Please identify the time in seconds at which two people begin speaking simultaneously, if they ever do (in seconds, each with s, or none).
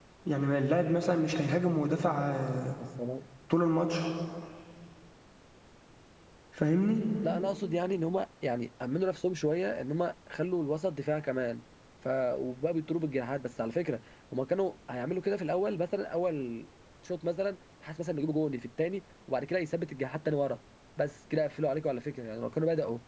none